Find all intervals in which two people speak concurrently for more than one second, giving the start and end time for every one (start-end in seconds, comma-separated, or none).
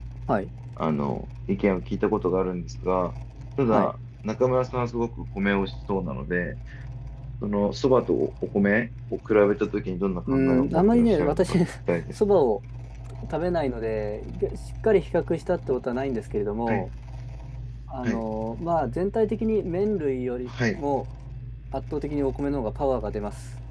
10.3-11.6